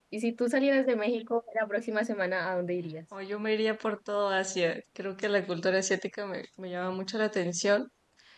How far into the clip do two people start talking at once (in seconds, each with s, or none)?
none